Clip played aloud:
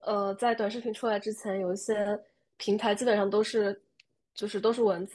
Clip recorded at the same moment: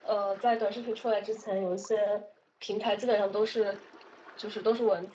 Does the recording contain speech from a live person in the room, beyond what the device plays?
No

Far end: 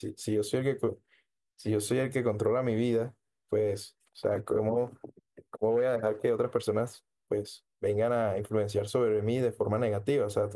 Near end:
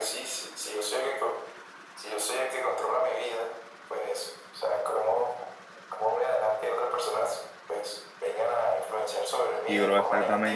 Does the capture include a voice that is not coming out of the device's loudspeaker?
Yes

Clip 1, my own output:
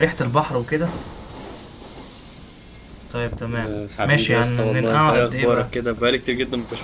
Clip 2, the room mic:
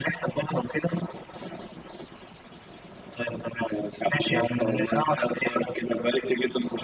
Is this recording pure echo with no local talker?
Yes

